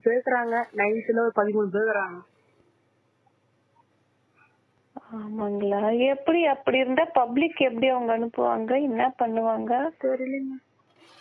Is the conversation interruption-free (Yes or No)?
Yes